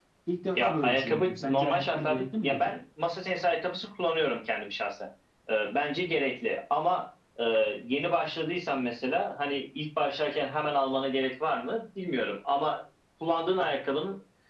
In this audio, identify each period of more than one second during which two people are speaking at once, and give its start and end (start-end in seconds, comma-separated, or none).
0.6-2.7